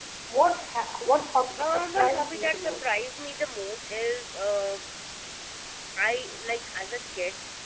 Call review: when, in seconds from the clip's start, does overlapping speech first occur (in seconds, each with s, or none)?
1.6 s